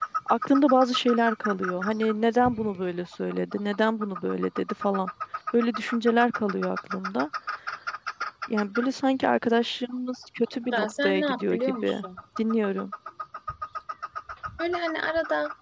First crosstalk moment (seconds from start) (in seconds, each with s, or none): 10.7 s